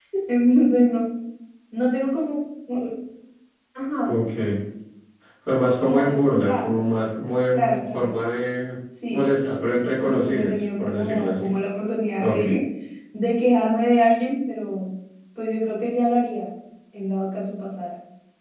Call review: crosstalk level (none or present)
present